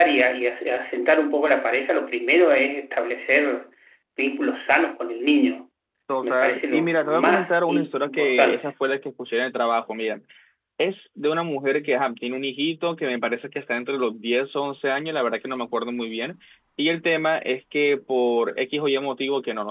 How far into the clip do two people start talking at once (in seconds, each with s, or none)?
6.2 s